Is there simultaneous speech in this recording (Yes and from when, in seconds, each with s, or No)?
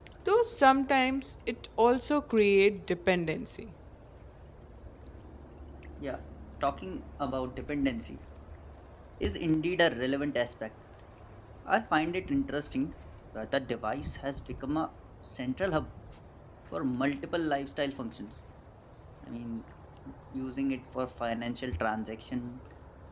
No